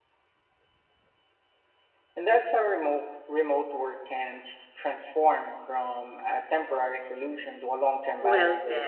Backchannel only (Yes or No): No